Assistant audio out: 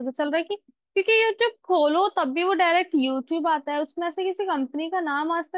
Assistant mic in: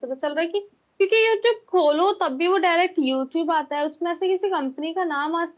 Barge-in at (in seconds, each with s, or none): none